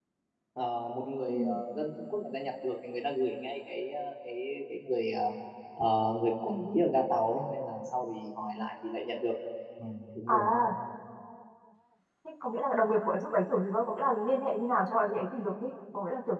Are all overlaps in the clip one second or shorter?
Yes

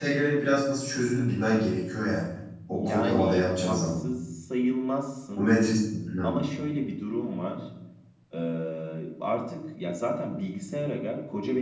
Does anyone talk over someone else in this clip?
Yes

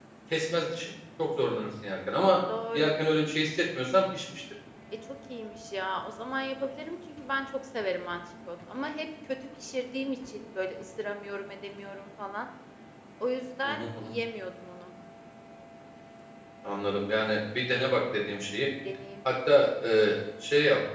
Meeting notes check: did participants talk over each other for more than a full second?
No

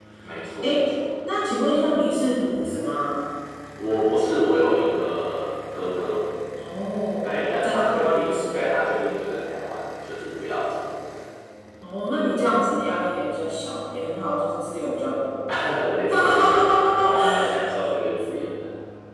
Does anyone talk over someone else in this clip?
Yes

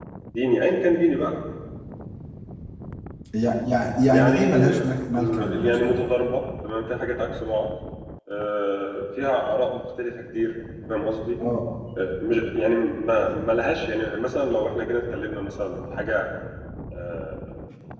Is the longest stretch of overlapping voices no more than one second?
No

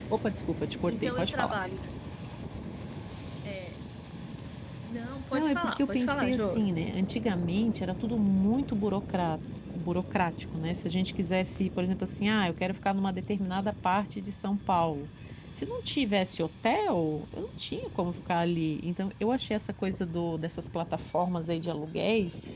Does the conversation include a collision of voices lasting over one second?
Yes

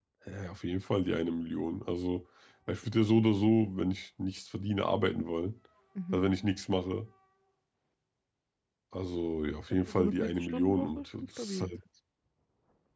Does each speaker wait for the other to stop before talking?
No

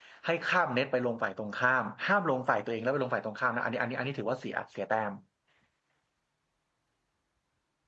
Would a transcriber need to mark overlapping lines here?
No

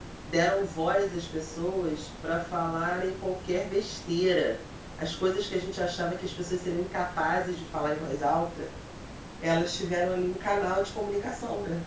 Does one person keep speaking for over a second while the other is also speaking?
No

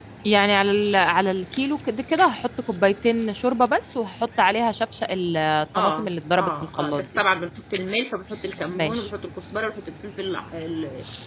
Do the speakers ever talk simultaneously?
Yes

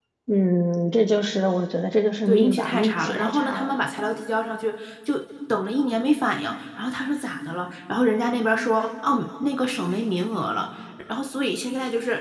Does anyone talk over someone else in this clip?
Yes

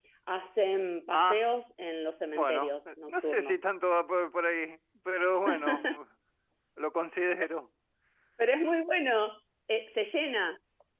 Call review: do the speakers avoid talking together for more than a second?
No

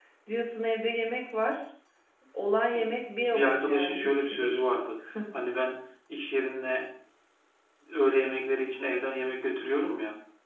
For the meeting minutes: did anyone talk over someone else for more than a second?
Yes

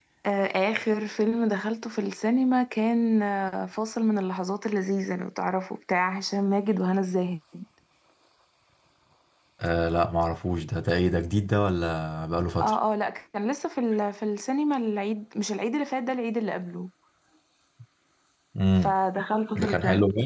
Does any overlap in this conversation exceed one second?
No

